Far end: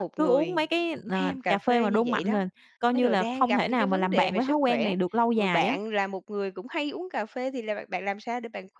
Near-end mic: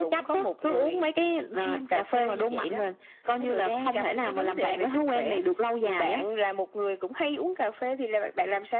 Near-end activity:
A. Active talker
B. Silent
B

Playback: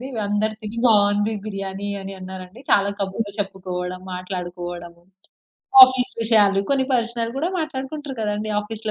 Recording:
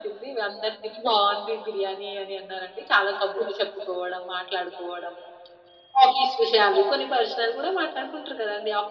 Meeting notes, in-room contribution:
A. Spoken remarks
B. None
B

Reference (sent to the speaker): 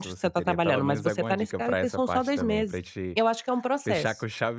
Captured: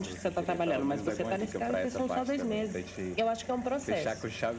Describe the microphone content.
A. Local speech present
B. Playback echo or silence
B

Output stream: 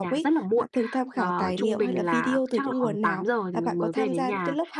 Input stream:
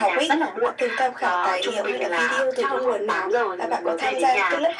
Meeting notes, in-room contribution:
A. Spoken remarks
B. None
B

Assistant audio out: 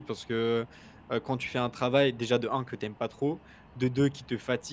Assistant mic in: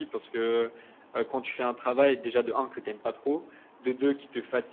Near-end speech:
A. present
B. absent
B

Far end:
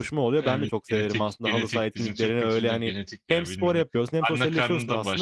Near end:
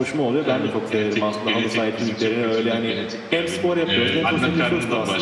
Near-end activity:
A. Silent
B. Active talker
B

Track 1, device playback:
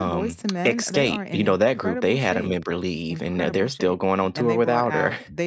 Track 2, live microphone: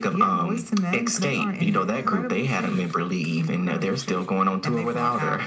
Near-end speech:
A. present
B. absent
A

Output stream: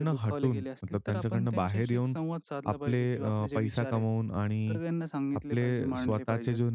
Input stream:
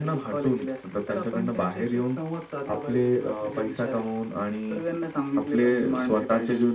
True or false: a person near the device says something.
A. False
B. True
A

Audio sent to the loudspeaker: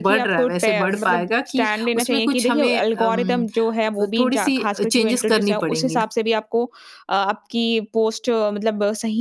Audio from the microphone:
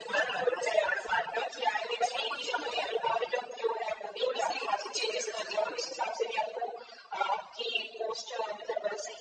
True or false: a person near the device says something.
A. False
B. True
A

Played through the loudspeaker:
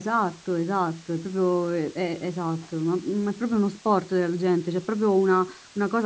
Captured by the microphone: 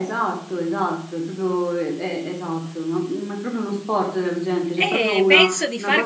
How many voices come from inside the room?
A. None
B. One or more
B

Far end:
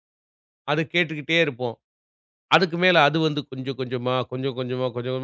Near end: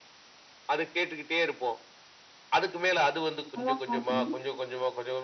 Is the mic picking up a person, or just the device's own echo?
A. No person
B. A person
B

